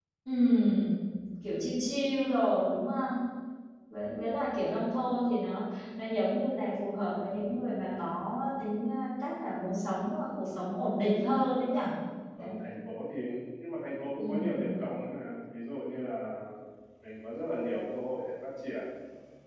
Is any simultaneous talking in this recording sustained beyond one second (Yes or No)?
No